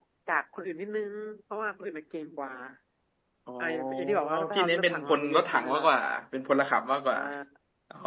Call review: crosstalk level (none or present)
present